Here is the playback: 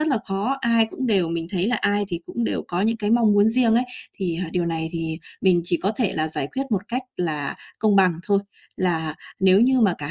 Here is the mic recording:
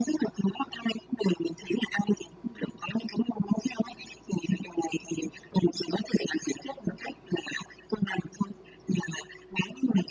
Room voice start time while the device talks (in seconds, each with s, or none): none